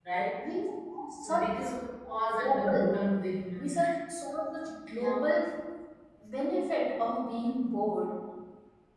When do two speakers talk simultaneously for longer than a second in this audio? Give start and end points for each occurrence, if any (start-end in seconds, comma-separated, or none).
none